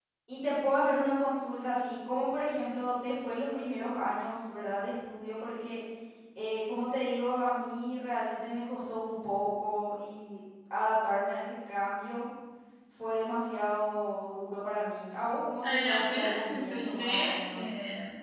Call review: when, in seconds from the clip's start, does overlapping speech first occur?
15.6 s

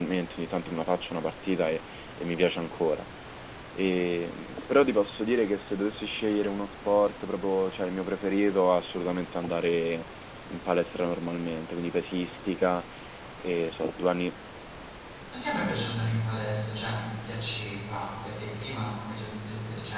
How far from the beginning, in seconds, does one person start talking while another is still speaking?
none

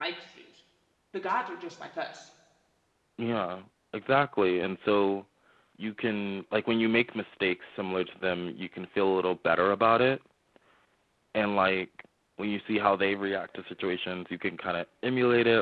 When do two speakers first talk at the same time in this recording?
none

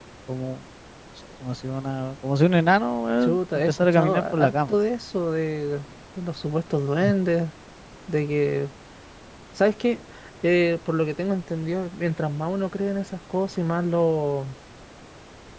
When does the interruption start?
3.2 s

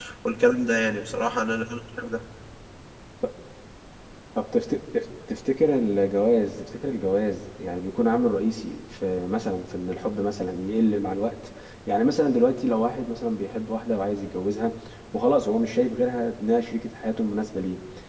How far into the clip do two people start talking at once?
none

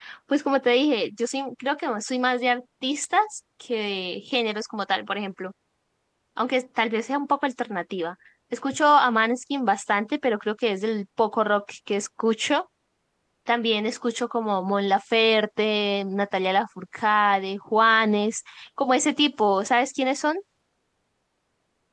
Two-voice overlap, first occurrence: none

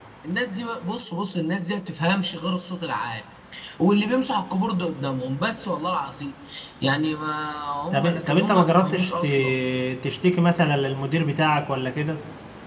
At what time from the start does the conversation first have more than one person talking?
7.9 s

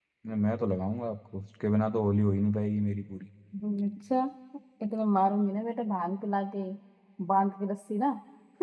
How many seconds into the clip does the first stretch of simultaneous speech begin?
none

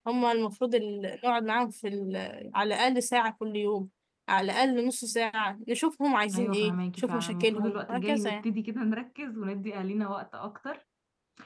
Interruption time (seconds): 6.3 s

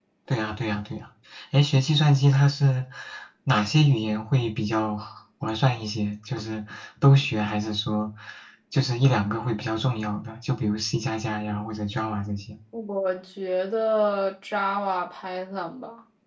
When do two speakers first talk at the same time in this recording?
none

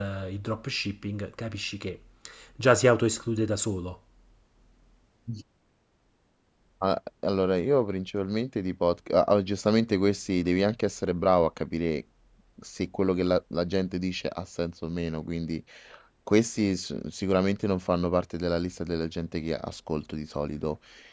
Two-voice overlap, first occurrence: none

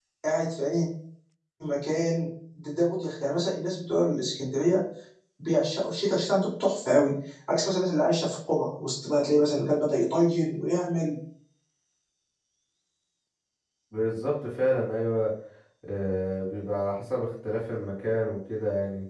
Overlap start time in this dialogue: none

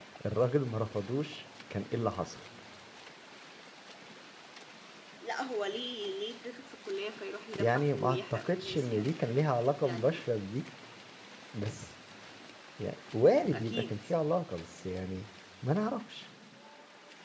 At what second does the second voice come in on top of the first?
7.6 s

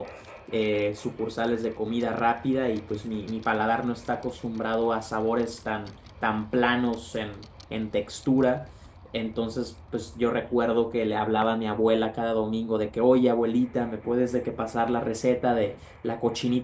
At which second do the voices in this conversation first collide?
none

